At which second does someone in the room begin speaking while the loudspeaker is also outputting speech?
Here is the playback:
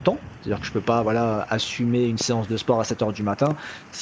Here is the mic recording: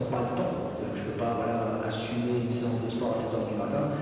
none

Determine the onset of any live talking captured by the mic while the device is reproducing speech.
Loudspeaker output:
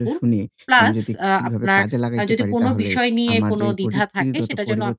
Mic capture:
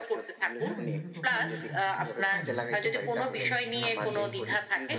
1 s

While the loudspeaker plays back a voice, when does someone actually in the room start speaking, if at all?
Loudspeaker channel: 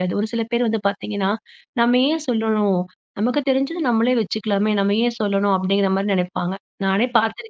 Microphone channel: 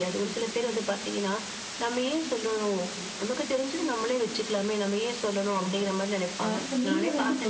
6 s

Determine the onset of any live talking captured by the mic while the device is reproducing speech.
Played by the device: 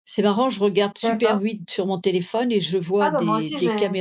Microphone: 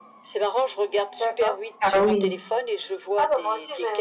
2 s

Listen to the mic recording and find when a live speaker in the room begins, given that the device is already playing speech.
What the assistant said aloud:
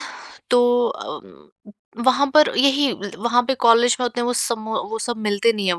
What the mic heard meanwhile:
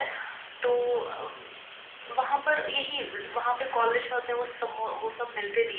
none

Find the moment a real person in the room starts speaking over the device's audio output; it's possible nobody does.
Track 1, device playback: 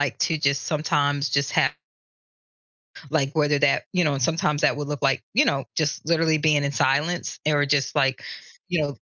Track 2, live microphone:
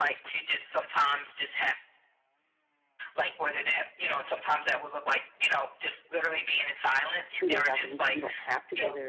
7 s

